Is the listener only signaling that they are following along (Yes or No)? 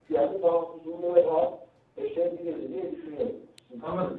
Yes